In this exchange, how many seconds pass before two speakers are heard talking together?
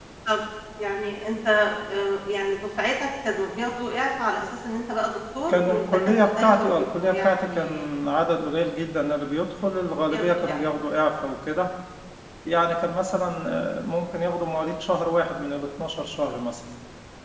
5 s

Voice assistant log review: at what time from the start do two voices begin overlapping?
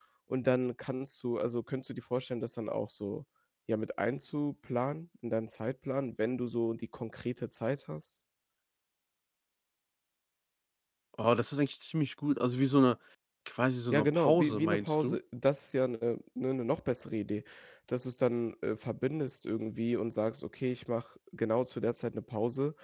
14 s

